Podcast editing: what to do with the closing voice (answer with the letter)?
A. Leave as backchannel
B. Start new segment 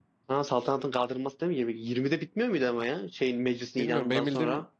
B